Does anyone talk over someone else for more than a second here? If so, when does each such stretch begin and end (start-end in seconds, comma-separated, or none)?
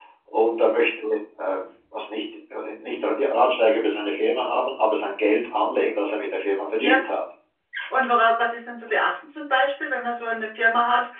none